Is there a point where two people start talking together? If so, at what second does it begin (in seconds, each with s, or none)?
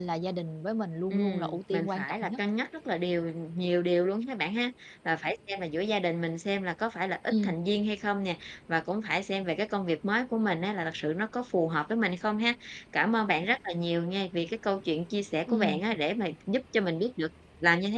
1.1 s